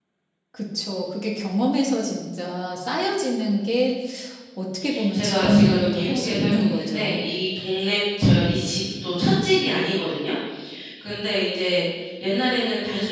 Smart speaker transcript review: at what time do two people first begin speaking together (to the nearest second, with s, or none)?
5 s